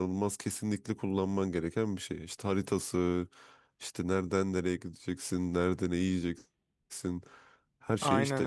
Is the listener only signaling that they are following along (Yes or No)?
Yes